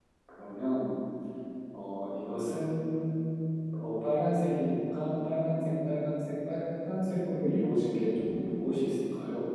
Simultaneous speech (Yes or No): No